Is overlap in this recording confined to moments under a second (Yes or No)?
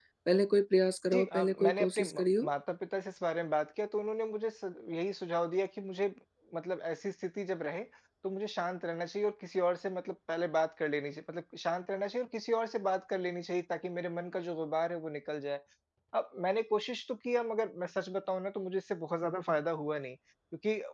No